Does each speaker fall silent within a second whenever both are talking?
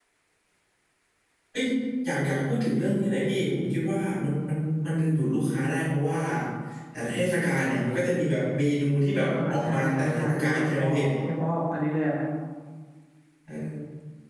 No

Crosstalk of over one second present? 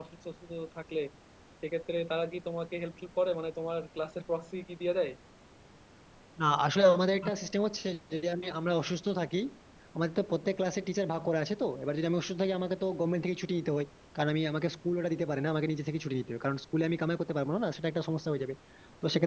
No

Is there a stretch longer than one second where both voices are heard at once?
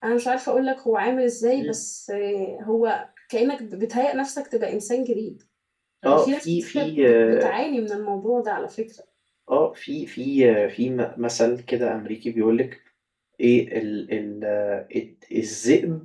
Yes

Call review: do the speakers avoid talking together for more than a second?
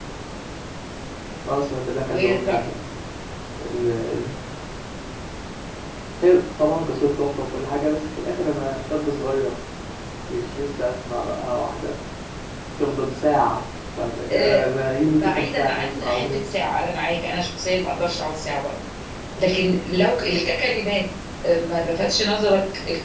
No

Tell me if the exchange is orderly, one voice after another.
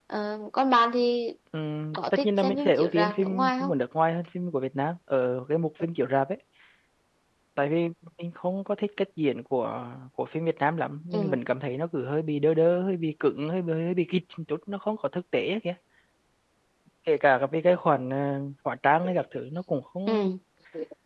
No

